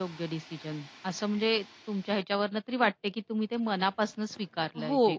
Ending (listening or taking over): taking over